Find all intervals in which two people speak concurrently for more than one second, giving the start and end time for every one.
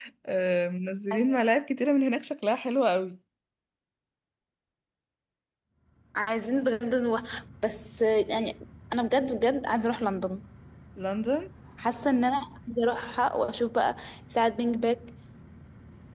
none

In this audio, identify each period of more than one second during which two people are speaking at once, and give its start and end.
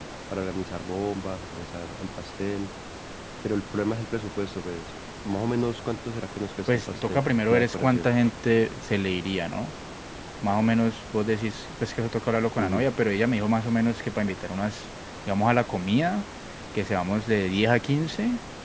6.7-8.1

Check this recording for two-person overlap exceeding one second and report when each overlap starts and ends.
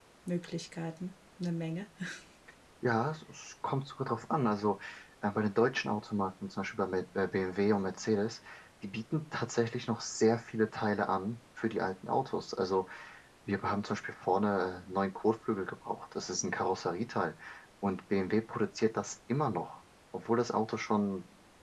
none

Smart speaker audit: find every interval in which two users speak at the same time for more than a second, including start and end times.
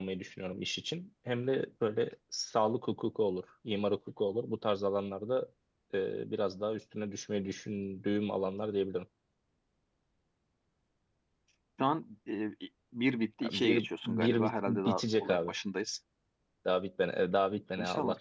13.5-15.5

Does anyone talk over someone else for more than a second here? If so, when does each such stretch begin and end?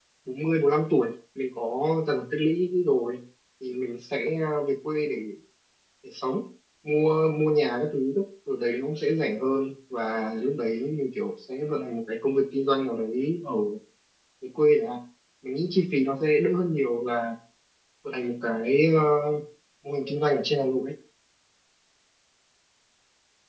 none

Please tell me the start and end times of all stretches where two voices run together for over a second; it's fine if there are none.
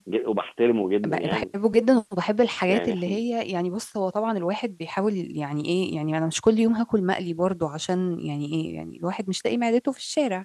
none

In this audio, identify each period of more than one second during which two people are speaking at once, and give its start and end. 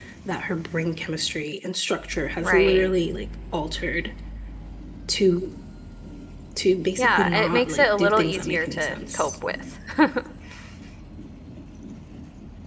7.0-9.3

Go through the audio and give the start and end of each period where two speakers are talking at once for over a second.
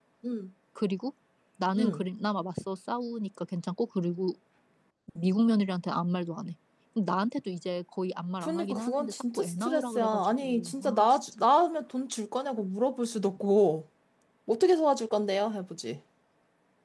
8.4-11.2

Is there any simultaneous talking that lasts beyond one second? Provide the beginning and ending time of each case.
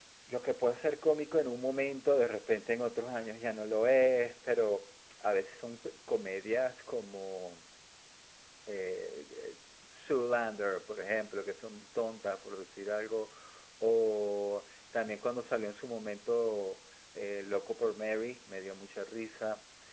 none

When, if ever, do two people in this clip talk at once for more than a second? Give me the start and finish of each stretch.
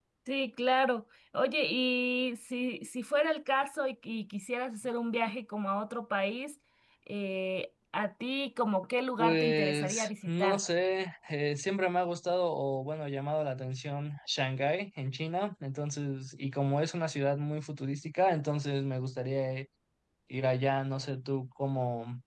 9.2-10.6

